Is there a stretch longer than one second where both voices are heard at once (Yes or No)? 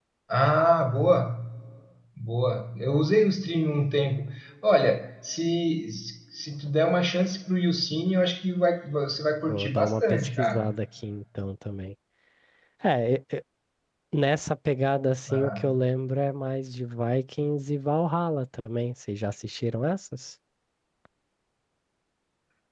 Yes